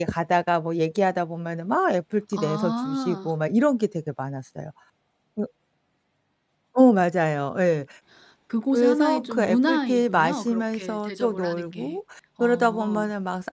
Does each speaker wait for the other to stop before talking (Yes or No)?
No